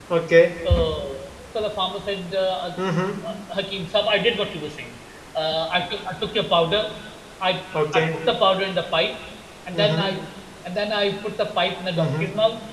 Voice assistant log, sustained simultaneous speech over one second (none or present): none